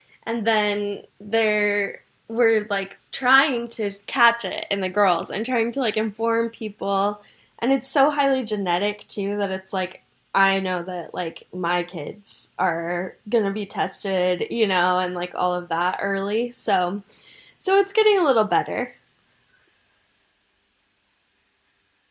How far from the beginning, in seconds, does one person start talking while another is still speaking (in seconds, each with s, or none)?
none